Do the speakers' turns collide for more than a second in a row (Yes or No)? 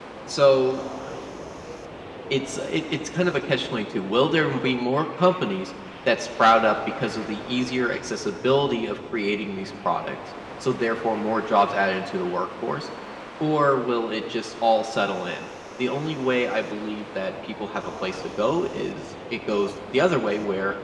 No